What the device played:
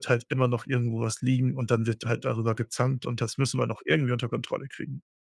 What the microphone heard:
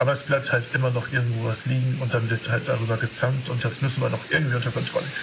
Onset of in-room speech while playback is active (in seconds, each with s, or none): none